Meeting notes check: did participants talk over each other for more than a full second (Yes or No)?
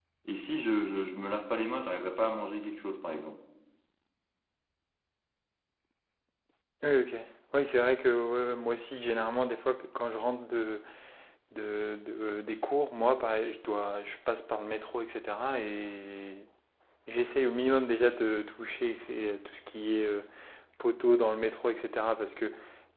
No